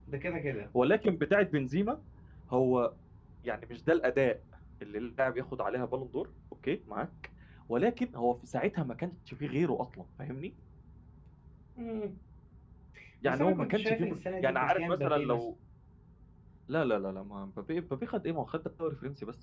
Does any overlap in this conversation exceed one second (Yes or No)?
Yes